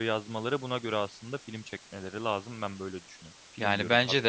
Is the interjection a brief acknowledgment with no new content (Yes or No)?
No